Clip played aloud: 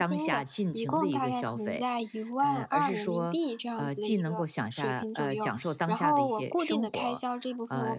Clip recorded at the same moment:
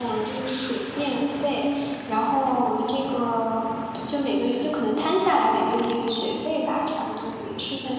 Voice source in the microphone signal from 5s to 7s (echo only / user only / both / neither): user only